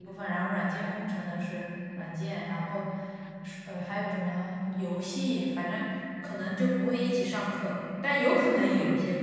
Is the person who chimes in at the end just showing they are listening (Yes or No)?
Yes